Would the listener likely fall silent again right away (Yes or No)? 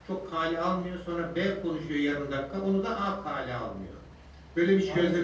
No